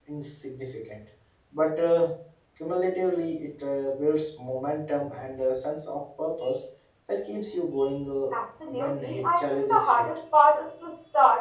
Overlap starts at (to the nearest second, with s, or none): 9 s